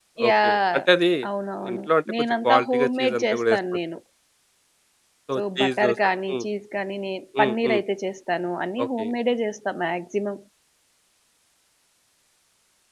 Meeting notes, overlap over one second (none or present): present